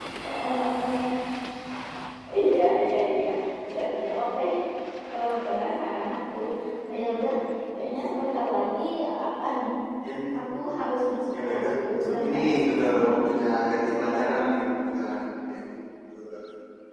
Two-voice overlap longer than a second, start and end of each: 11.4-13.2

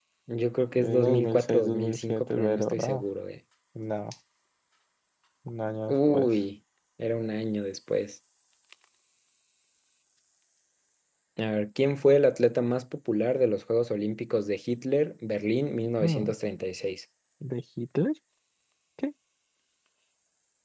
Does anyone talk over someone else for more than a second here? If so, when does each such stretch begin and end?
0.8-3.0

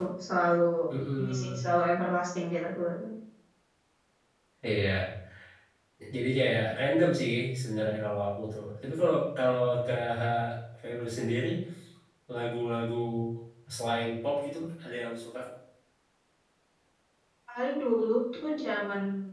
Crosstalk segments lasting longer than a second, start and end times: none

